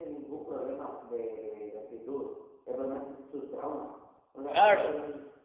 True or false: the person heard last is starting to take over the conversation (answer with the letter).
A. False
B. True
A